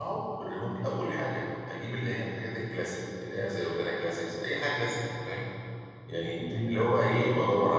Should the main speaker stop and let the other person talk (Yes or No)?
No